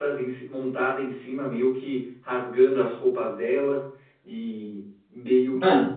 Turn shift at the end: No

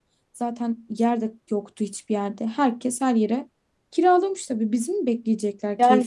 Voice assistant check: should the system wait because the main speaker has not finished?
No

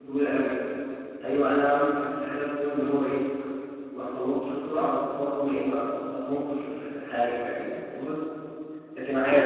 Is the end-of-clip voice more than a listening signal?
Yes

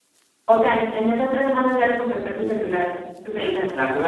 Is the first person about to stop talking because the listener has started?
Yes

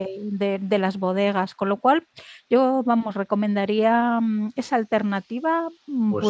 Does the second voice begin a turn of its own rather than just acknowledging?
Yes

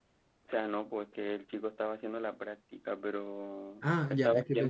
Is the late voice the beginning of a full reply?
Yes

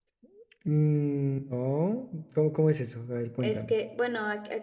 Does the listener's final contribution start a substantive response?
Yes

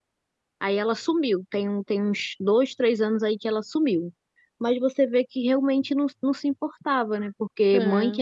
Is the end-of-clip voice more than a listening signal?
No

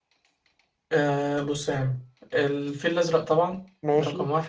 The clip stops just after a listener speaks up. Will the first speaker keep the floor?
Yes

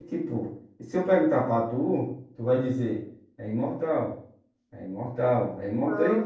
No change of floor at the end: No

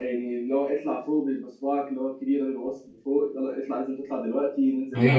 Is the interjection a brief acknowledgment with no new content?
No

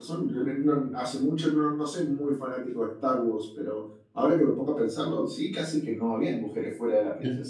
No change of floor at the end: No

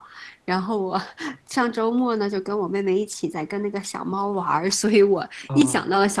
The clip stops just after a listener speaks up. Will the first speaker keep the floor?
Yes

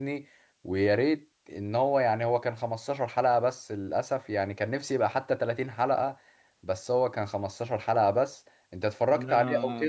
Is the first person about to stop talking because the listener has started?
Yes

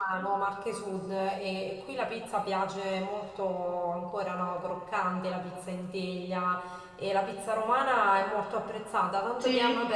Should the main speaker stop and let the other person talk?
No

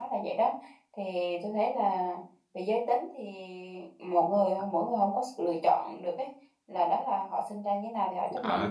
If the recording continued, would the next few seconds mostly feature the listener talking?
Yes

